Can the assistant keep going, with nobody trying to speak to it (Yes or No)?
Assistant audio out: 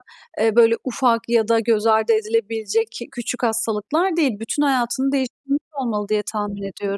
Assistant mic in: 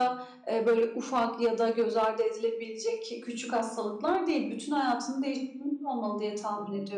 Yes